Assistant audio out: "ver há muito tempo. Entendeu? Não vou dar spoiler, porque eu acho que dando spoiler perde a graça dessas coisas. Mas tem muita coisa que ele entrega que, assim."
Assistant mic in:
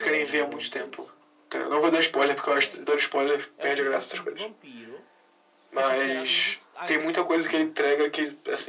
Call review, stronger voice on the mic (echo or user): echo